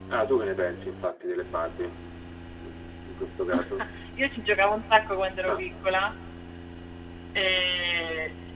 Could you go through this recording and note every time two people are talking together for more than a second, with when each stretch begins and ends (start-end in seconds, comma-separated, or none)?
none